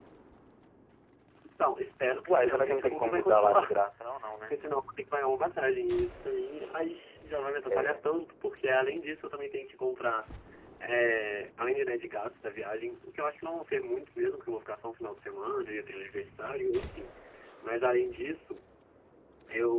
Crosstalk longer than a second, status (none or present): present